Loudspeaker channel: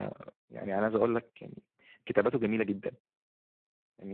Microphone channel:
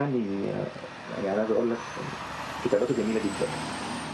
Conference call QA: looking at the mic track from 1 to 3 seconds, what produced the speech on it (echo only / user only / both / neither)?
echo only